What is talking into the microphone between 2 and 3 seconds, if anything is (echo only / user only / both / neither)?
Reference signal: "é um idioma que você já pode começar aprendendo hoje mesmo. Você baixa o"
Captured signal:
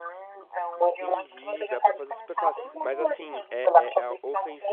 both